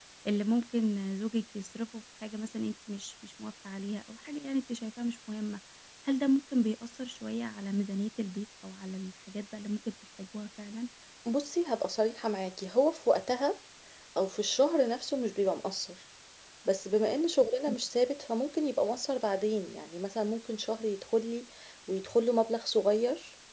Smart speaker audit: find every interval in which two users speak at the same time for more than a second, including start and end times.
none

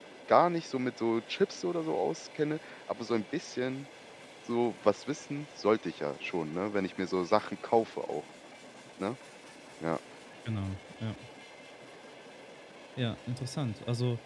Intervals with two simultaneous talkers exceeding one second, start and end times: none

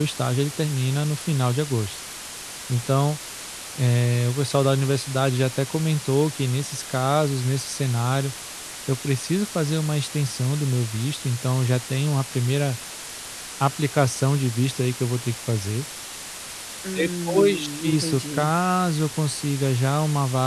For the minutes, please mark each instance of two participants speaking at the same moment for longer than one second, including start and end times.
16.9-18.5

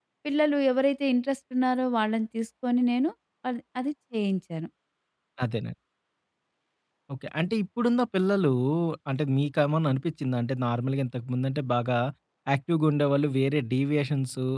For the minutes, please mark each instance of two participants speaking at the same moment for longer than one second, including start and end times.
none

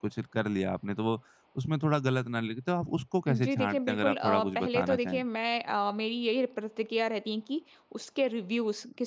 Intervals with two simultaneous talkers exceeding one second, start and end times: 3.3-5.2

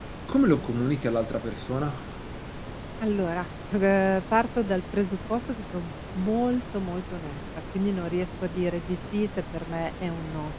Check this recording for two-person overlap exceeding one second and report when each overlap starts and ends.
none

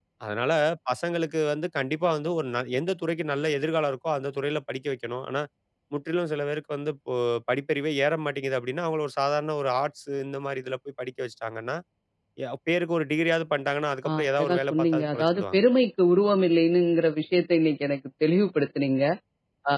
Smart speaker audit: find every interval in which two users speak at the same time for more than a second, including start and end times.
14.1-15.6

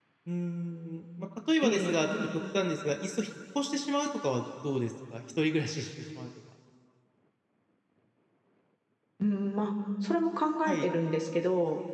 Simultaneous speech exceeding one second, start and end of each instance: none

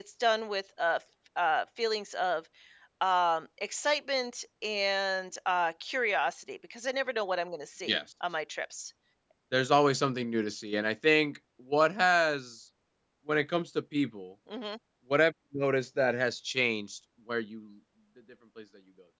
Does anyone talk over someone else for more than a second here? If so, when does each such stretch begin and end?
none

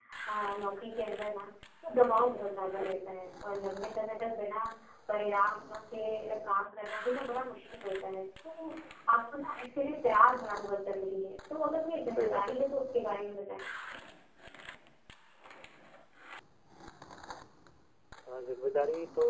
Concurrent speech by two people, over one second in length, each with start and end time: none

